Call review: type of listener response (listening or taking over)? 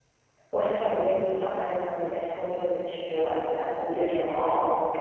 listening